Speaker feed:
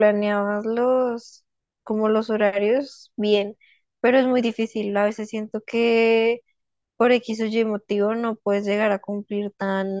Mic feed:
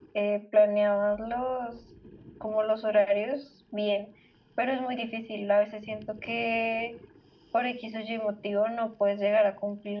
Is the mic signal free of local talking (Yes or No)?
Yes